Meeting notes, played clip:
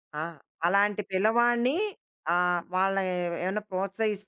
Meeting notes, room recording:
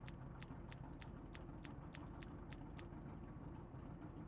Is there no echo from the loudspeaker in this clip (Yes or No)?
Yes